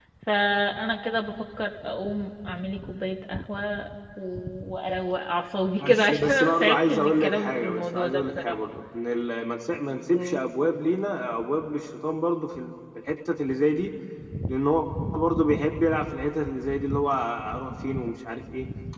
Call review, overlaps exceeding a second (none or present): present